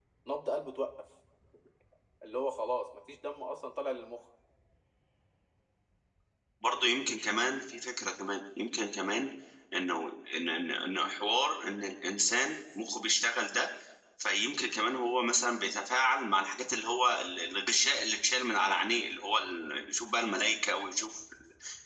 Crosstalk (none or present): none